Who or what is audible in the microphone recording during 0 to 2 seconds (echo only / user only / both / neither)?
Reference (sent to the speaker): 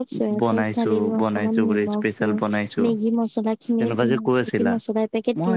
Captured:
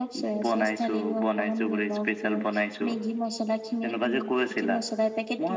echo only